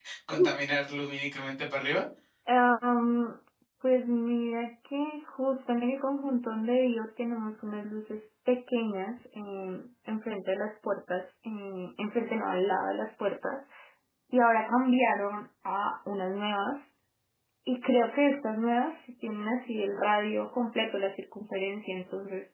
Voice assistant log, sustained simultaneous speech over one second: none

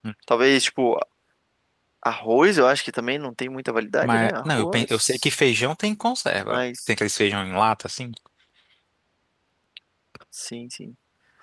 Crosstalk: present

